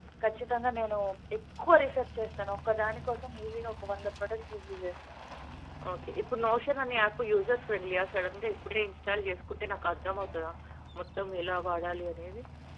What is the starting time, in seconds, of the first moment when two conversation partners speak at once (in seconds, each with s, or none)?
none